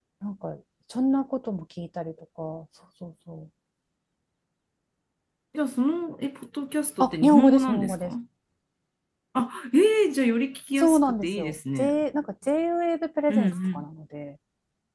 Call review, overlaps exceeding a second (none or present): present